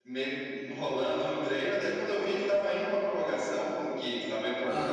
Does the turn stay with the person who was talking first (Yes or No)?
Yes